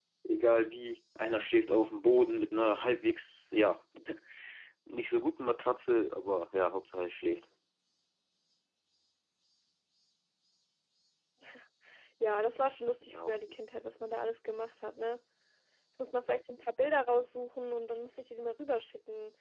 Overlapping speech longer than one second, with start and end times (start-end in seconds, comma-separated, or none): none